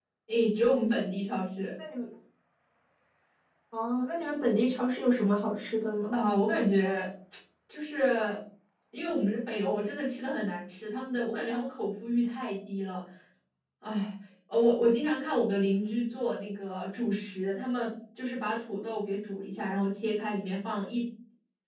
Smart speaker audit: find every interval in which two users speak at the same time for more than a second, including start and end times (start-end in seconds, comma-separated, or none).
none